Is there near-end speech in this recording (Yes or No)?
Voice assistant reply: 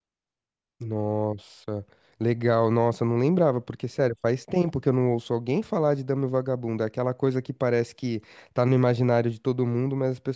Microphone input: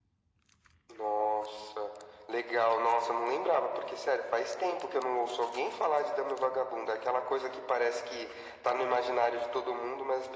No